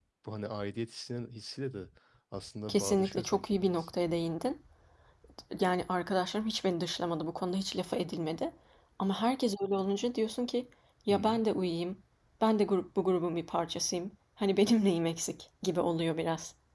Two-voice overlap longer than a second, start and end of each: 2.7-3.9

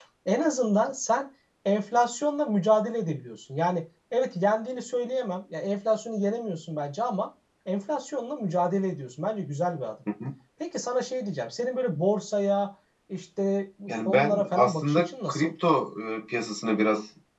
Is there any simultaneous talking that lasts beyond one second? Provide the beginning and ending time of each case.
13.9-15.5

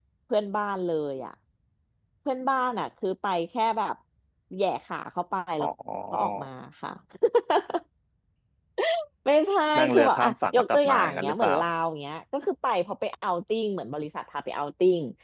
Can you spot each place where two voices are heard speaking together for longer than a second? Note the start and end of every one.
9.8-11.6

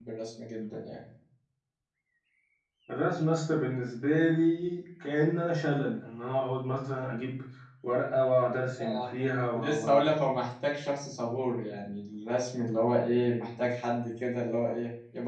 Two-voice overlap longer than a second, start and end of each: 8.8-10.3

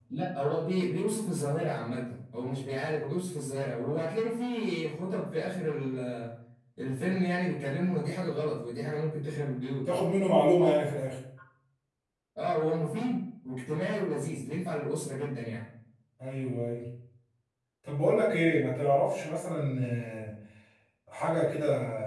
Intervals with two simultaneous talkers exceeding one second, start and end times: none

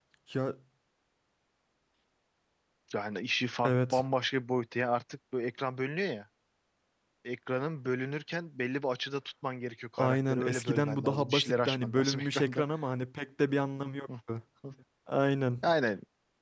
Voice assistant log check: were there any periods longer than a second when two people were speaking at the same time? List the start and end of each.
10.0-12.6

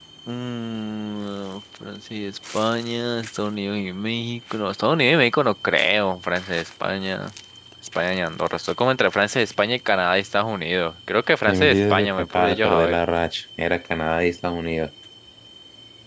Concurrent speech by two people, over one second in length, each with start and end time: 11.5-13.0

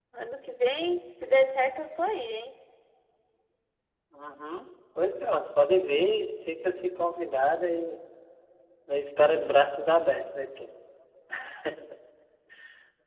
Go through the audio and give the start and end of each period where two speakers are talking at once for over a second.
none

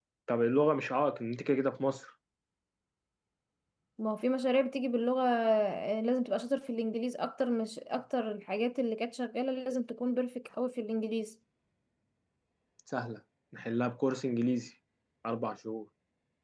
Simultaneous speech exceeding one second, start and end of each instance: none

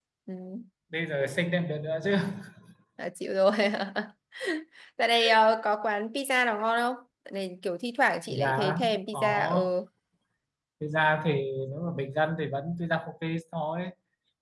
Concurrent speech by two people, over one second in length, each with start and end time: 8.3-9.7

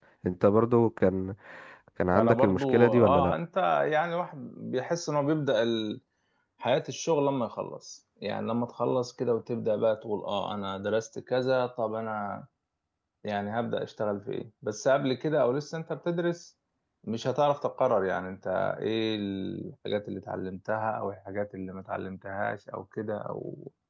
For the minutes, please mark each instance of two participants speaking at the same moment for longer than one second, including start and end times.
2.1-3.4

